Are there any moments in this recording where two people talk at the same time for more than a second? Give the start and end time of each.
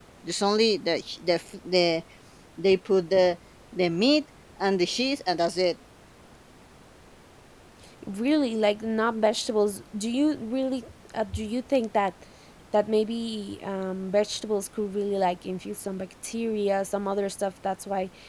none

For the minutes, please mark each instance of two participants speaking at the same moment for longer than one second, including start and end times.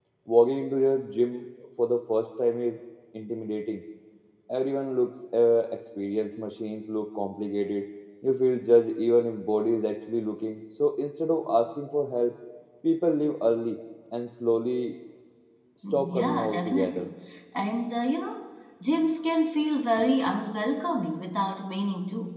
15.9-17.1

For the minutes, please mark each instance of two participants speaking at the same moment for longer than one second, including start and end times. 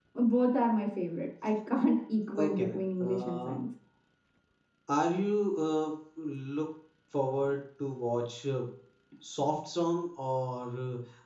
2.4-3.6

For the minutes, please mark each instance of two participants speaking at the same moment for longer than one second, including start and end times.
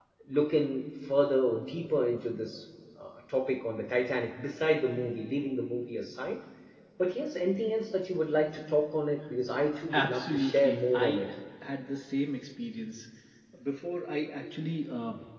9.9-11.2

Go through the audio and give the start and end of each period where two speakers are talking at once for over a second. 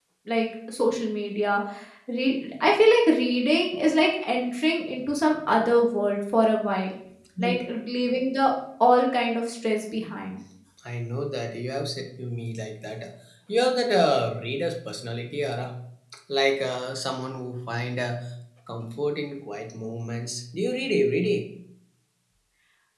none

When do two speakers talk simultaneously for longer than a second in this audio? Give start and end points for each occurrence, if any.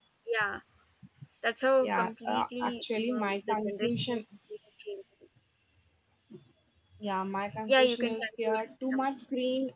1.8-4.2, 7.7-9.1

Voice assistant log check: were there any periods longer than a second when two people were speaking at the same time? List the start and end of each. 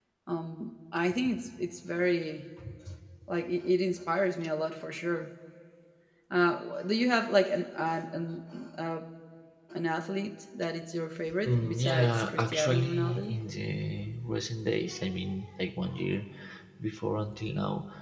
11.4-13.4

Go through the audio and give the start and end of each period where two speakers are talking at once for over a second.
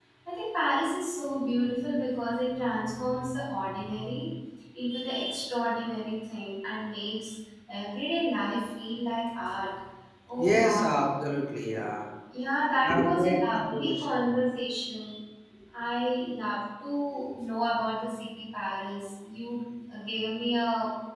12.9-14.3

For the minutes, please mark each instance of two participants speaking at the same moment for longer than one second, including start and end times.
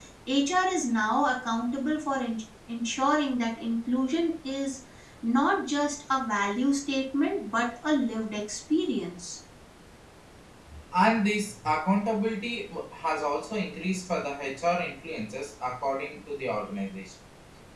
none

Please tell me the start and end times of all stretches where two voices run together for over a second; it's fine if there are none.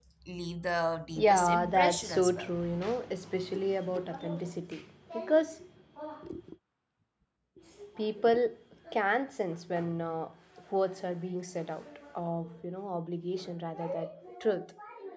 1.1-2.5

